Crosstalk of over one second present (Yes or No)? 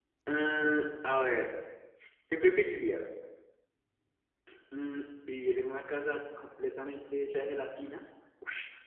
No